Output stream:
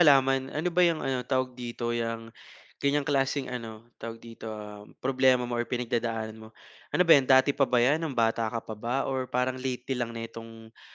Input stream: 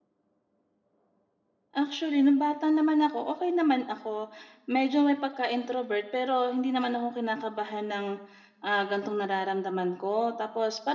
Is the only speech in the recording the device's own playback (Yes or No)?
No